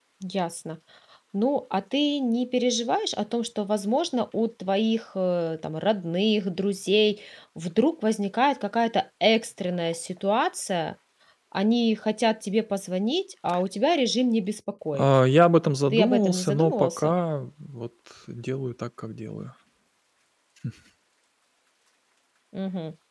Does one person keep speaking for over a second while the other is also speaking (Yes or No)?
Yes